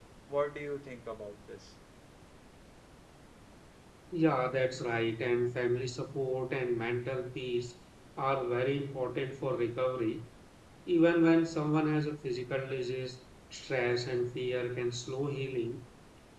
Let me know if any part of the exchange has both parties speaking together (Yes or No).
No